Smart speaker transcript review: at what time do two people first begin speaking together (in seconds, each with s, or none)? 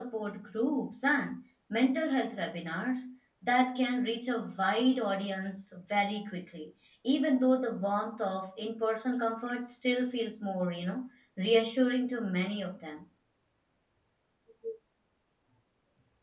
none